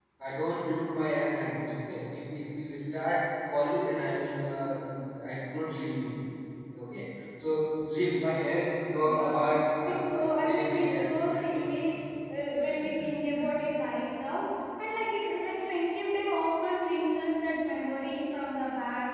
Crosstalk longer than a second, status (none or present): present